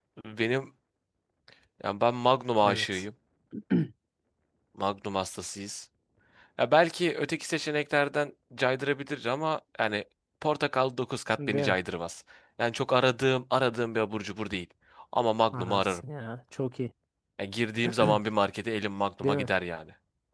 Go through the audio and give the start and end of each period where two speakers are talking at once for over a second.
none

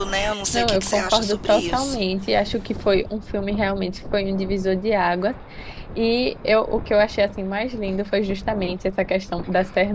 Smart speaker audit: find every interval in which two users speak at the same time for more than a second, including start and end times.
0.5-2.0

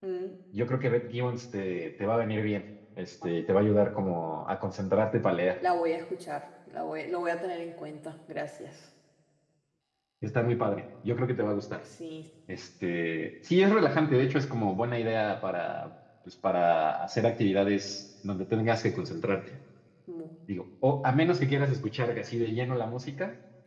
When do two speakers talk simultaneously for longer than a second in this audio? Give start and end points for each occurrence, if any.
none

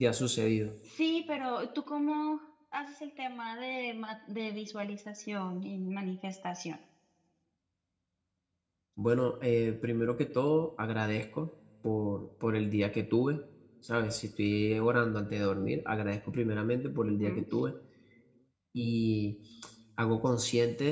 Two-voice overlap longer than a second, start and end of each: none

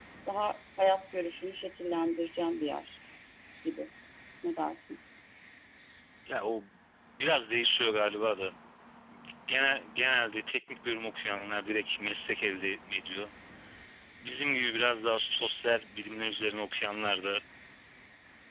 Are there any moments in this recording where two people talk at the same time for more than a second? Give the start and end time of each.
none

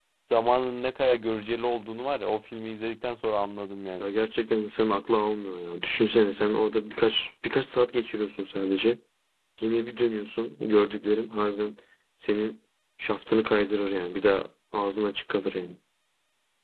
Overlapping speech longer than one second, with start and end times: none

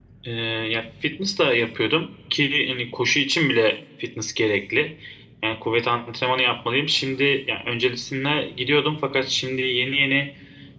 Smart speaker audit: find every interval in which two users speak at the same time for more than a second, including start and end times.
none

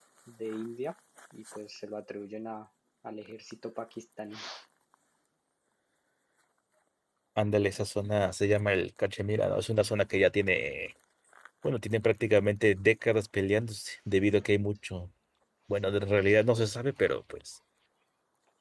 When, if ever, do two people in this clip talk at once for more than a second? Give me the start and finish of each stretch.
none

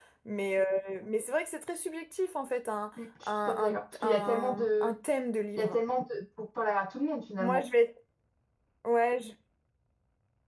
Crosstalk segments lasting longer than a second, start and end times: 3.2-5.0

